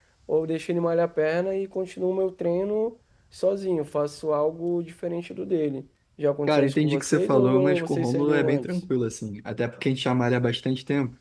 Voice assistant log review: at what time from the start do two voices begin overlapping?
6 s

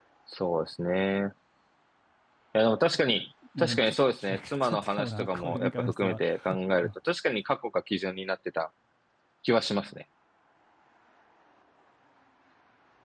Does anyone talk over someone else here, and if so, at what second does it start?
4 s

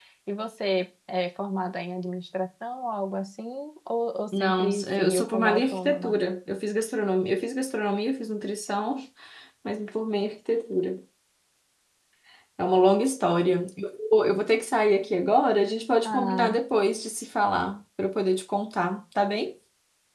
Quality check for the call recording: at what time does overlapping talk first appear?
4 s

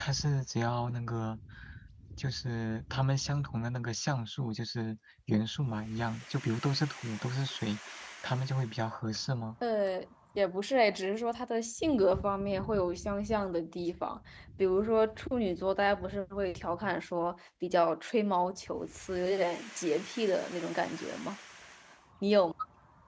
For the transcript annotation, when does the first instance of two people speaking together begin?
none

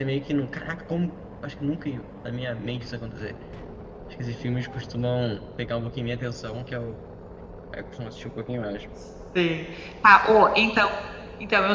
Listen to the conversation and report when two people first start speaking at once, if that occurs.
none

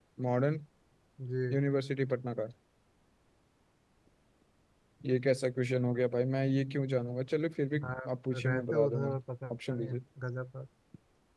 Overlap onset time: 8 s

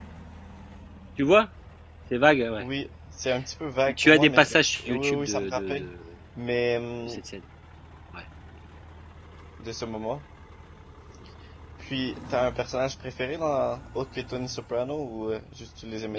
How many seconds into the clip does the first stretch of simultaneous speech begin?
4 s

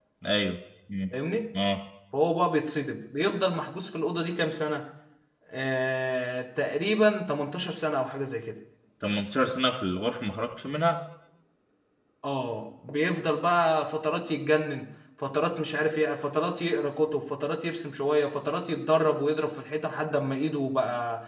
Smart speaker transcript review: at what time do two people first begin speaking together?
none

